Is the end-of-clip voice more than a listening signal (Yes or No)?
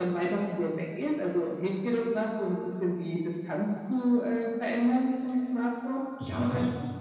Yes